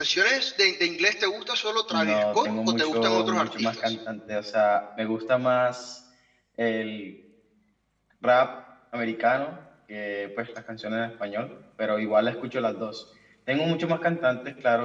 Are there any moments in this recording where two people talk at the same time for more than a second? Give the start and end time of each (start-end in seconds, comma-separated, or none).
1.9-4.0